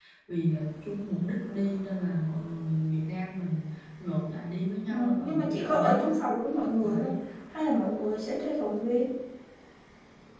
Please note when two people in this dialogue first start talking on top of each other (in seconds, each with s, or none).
4.9 s